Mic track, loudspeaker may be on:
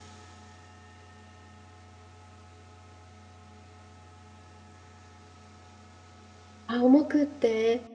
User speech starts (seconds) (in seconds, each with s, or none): 6.7 s